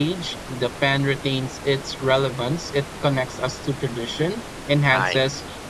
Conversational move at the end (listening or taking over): listening